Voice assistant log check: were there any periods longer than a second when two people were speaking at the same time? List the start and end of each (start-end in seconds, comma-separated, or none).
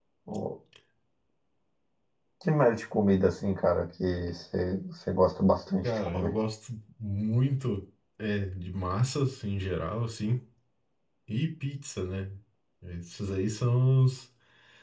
none